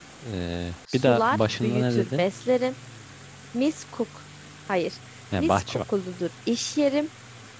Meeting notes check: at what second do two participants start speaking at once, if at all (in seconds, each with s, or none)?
0.9 s